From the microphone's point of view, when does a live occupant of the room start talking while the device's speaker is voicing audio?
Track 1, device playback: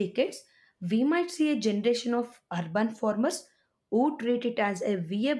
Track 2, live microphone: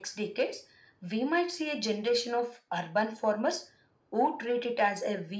none

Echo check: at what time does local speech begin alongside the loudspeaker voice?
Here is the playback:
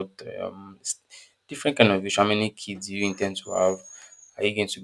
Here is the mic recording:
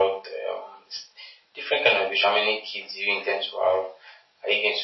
none

